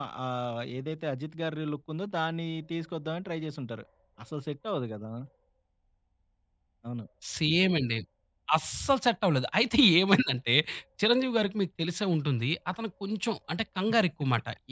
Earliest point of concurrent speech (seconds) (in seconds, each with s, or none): none